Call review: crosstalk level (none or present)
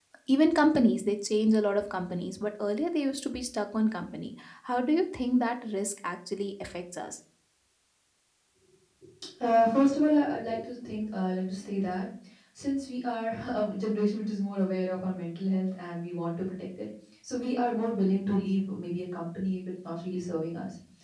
none